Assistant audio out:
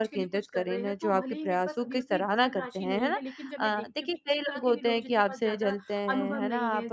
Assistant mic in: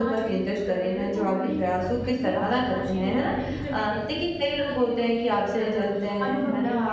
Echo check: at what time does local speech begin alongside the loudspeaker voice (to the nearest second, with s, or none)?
none